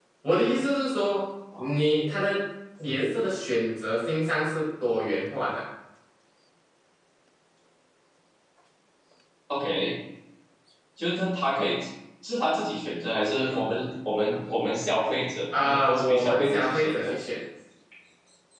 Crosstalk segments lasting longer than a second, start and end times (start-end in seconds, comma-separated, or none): 15.5-17.1